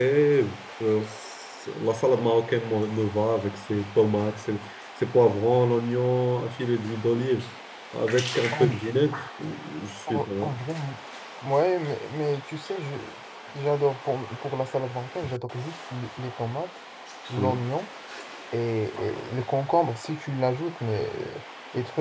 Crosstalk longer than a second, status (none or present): none